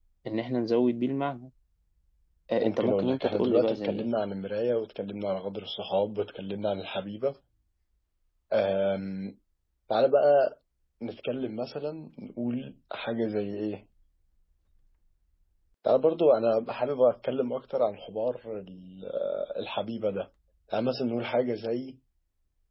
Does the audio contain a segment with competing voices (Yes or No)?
Yes